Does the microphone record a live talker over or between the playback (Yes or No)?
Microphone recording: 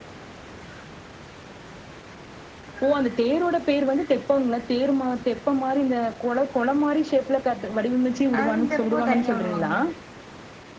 Yes